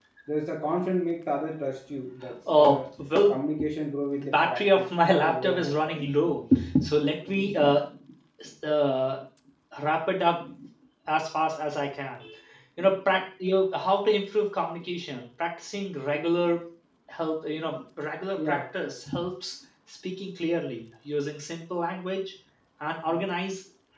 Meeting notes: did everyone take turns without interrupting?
No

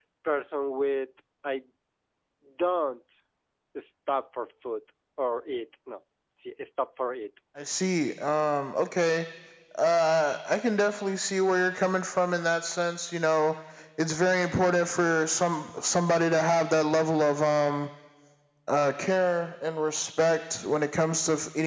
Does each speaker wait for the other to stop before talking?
Yes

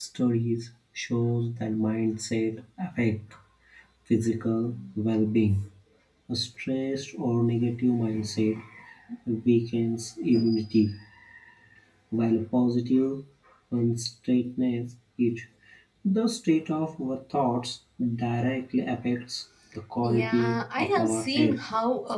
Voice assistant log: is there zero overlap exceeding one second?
No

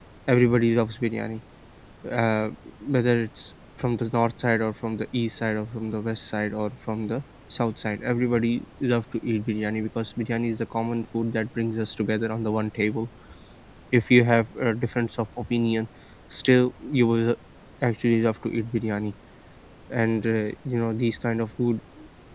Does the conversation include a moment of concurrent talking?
No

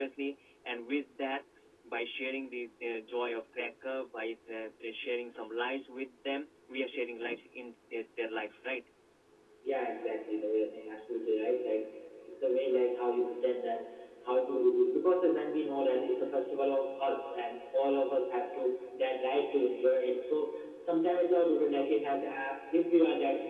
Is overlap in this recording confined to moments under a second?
Yes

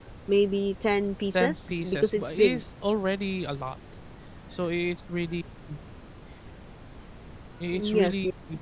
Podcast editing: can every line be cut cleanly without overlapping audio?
No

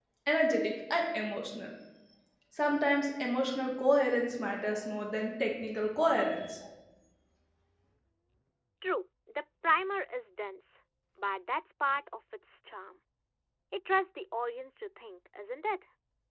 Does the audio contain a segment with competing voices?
No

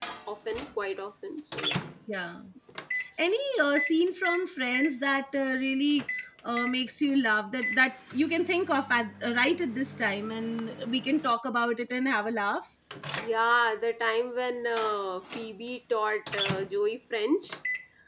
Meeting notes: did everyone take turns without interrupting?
Yes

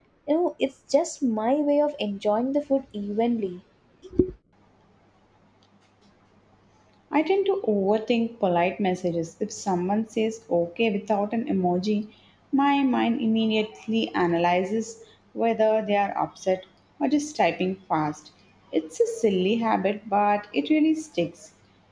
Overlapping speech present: No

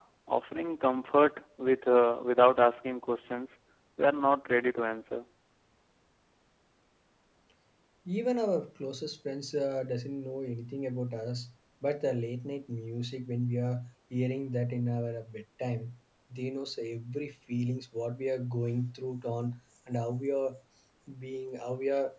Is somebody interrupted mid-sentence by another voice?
No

